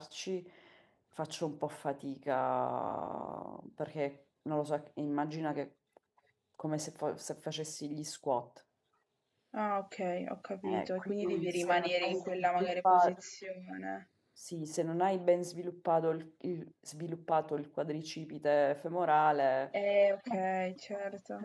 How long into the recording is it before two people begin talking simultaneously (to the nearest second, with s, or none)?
11 s